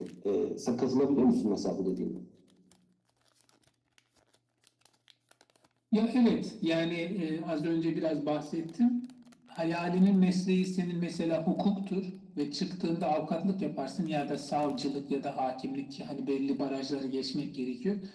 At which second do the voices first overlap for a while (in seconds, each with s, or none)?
none